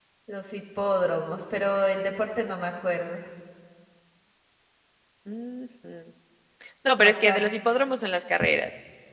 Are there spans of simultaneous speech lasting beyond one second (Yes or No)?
No